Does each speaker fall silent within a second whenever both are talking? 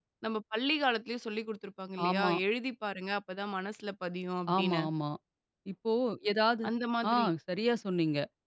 Yes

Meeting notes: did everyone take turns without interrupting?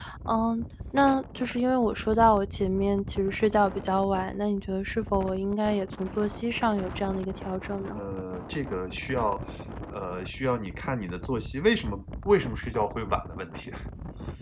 Yes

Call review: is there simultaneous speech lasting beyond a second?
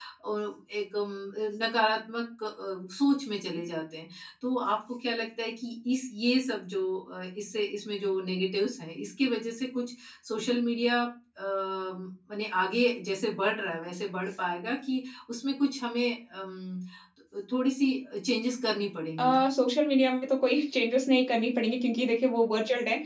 No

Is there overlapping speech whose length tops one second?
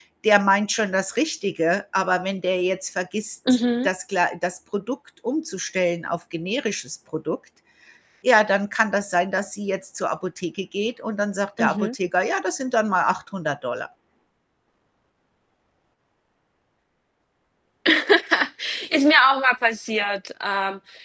No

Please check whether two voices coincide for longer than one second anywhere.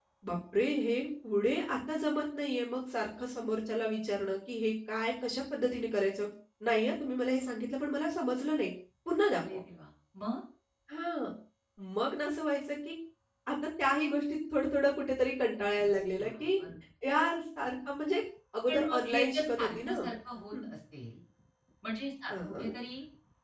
Yes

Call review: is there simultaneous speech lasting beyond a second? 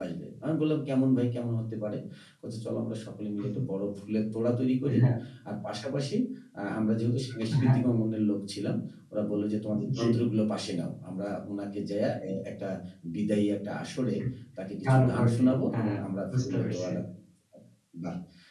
Yes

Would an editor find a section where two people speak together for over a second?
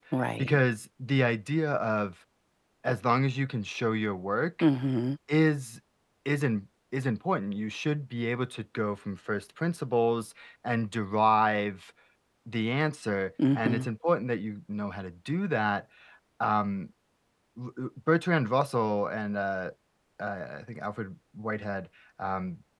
No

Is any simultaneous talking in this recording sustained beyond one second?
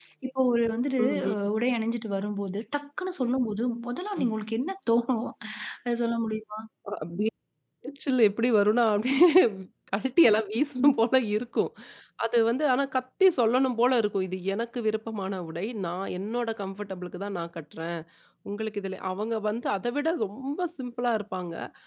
No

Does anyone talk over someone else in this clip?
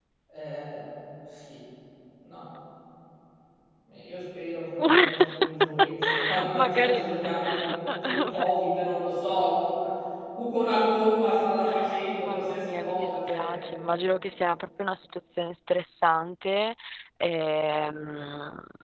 Yes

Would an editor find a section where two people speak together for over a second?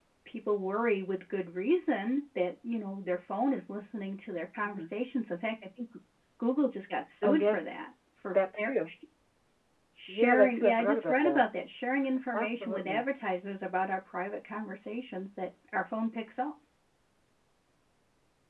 Yes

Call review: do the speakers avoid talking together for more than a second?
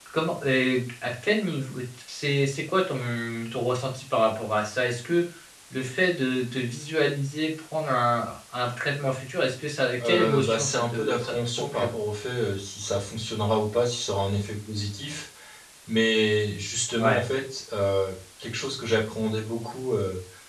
No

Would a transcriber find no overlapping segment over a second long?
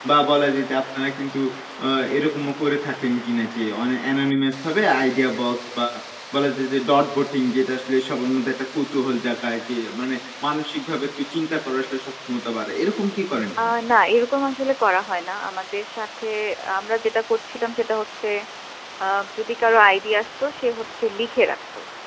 Yes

